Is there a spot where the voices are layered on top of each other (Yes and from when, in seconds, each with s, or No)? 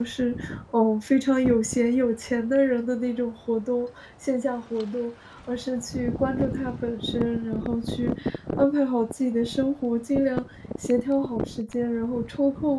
No